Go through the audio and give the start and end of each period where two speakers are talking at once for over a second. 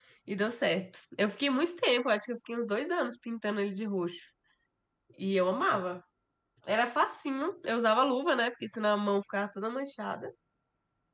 none

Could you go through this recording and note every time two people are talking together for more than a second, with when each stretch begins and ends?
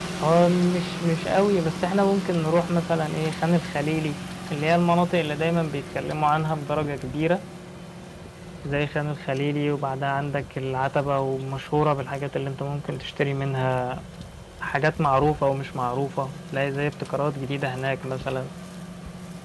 none

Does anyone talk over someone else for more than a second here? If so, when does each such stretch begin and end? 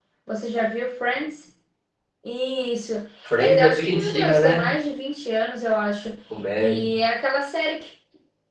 3.4-4.7

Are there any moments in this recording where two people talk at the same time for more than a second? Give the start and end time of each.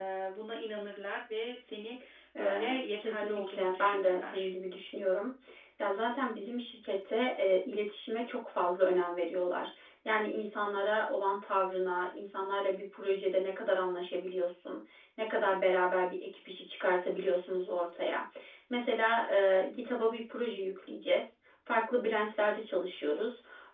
2.4-4.5

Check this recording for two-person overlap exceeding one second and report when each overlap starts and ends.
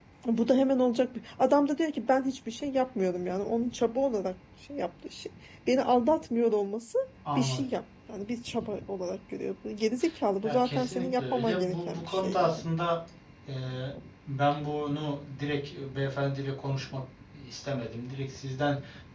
10.4-12.7

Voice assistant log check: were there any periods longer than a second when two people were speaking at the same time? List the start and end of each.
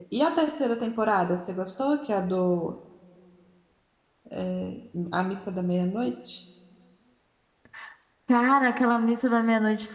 none

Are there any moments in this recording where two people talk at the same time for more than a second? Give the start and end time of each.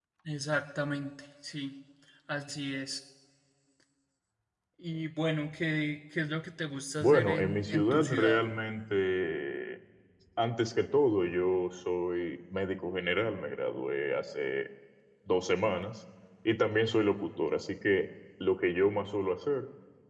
7.0-8.4

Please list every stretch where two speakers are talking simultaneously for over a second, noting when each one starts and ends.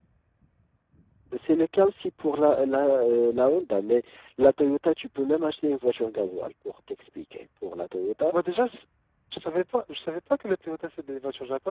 none

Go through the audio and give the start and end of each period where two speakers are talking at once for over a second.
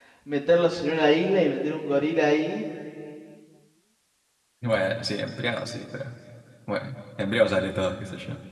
none

